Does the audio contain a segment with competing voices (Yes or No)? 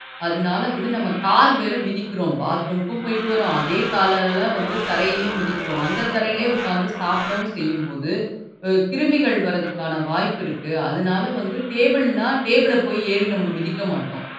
No